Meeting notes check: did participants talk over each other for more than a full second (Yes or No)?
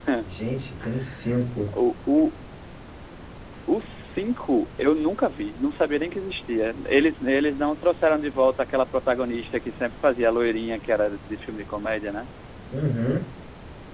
No